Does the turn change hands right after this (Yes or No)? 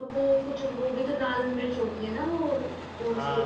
Yes